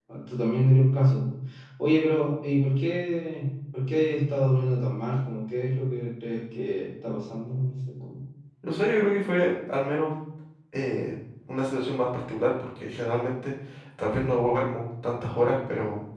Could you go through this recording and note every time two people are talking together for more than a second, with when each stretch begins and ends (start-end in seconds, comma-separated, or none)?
none